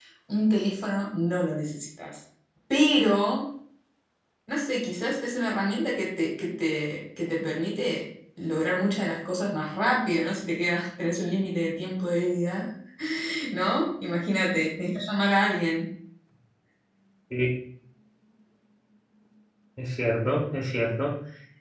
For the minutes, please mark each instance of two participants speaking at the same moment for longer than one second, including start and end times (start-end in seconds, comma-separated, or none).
none